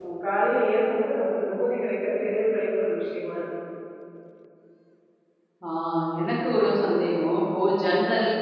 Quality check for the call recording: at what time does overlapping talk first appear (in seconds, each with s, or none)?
none